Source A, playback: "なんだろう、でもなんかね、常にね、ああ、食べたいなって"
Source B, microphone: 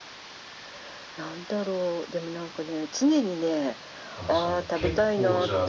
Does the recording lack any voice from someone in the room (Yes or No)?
No